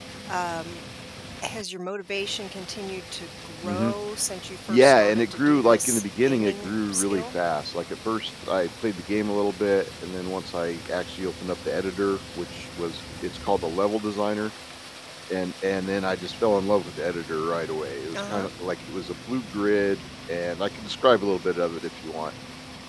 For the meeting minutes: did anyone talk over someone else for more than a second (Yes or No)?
Yes